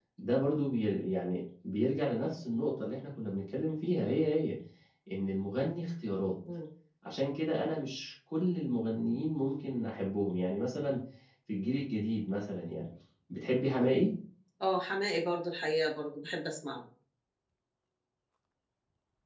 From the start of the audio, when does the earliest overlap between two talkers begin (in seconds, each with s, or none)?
none